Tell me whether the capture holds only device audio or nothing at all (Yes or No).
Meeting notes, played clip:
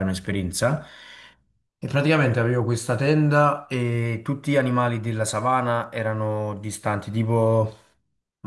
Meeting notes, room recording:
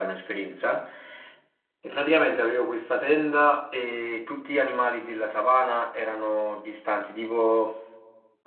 Yes